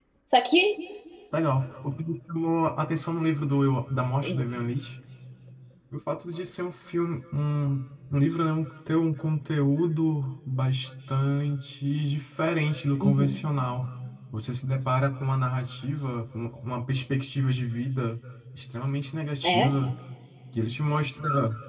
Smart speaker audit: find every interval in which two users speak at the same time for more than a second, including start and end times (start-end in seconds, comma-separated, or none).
none